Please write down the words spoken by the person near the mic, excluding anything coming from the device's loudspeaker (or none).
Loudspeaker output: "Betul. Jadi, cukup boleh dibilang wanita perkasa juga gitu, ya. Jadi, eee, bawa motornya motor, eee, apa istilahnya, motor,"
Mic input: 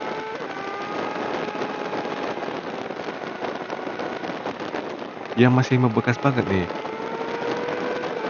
yang masih membekas banget nih,